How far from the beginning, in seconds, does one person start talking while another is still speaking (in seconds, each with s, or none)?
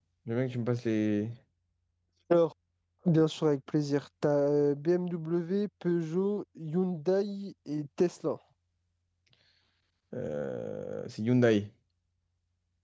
none